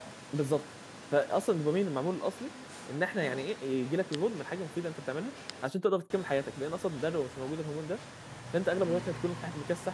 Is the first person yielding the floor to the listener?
No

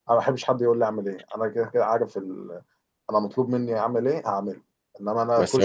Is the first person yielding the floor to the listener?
No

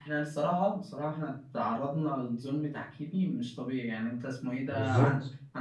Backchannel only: Yes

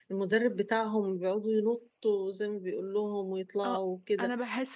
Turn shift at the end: Yes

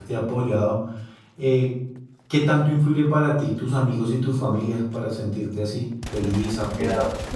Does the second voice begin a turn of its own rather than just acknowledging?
Yes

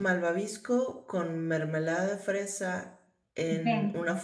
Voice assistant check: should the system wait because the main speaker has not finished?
Yes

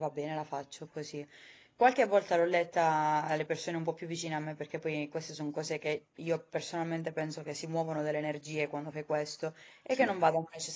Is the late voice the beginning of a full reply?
No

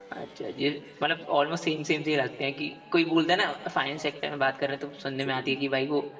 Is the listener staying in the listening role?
Yes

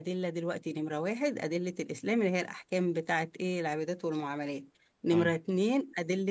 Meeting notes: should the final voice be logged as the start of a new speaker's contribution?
No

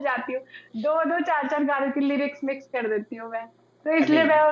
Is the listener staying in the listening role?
Yes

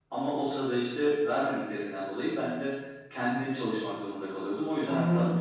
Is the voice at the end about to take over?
Yes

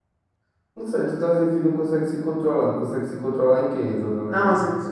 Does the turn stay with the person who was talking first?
No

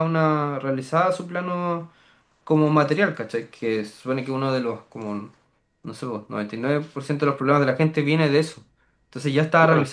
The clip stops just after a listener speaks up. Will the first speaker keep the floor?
Yes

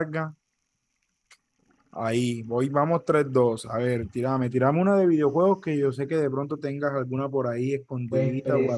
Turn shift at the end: Yes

